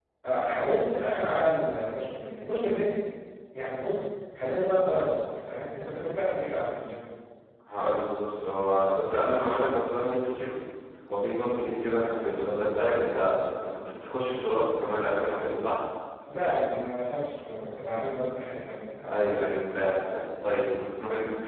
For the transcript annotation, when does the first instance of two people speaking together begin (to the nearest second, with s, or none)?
none